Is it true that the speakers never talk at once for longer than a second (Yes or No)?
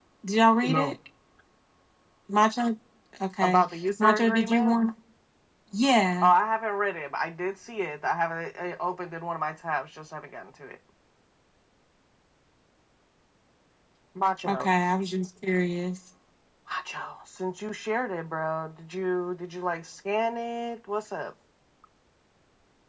No